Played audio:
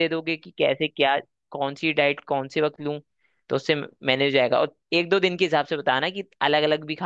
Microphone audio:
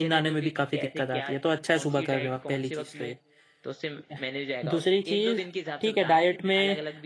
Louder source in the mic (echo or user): user